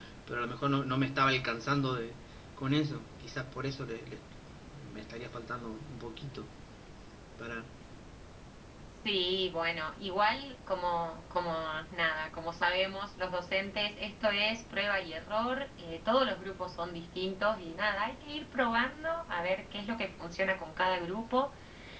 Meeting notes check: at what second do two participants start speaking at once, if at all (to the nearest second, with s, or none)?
none